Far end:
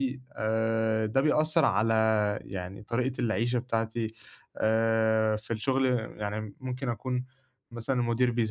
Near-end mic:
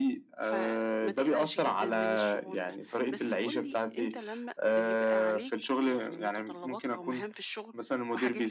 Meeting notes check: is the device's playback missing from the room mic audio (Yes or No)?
No